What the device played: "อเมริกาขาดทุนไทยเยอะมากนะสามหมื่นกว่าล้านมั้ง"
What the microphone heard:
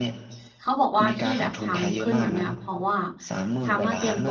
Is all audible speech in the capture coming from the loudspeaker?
No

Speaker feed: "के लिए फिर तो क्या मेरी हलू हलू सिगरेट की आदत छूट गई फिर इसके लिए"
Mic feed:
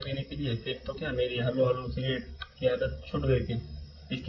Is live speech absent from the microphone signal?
Yes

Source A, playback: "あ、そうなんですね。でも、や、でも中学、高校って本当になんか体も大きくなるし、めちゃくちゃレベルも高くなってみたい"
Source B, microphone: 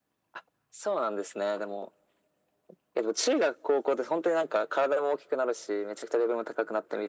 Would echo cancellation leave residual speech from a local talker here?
No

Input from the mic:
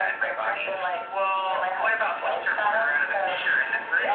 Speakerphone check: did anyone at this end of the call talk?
No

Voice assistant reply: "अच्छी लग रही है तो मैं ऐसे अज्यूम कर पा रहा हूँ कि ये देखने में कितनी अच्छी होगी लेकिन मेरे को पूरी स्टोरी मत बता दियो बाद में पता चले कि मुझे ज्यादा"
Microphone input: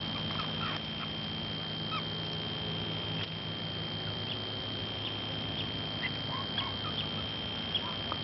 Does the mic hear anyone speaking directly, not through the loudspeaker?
No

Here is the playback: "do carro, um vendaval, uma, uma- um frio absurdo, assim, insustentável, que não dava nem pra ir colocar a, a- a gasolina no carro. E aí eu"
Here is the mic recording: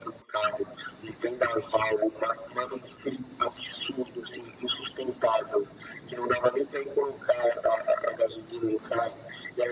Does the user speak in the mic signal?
No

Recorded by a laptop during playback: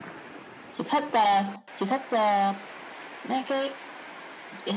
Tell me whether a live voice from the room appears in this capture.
No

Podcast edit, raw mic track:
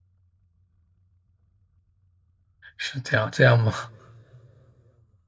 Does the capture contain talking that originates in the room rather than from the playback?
Yes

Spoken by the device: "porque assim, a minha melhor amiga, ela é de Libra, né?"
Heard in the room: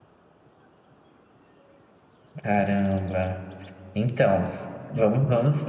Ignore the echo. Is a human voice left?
Yes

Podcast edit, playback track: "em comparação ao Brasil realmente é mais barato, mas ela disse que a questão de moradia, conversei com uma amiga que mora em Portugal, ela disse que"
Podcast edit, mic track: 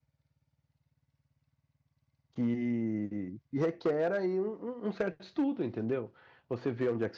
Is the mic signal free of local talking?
No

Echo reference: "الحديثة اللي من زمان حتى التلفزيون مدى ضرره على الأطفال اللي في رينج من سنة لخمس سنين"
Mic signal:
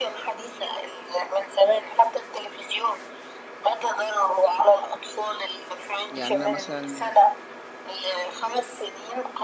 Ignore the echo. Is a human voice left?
Yes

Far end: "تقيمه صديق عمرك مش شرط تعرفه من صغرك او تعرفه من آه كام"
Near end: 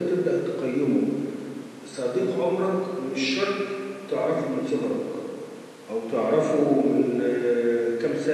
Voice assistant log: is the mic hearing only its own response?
Yes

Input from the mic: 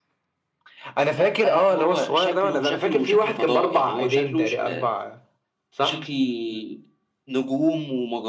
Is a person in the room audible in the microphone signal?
No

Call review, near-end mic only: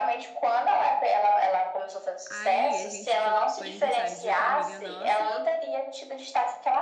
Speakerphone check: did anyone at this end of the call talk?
Yes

